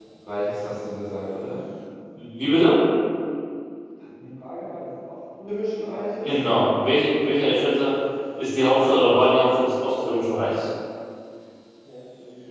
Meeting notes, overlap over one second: none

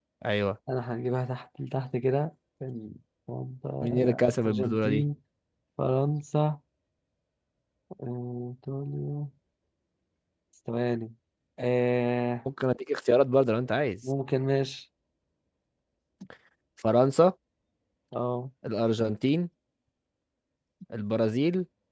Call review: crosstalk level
present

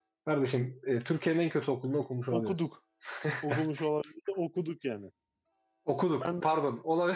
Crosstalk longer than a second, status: none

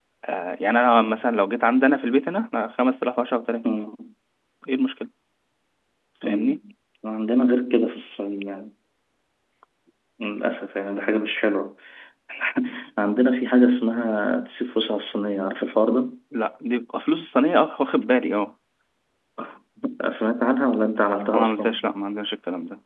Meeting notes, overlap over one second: none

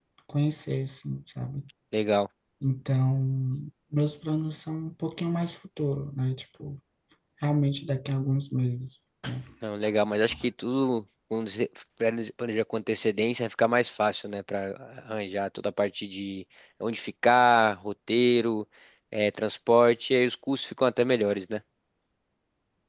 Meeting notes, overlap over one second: none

